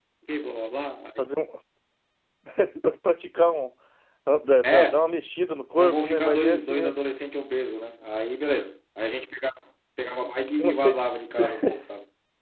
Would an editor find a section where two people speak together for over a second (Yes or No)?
Yes